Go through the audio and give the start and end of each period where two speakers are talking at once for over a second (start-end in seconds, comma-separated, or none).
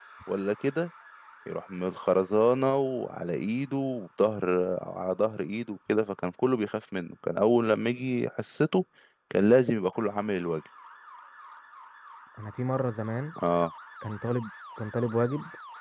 none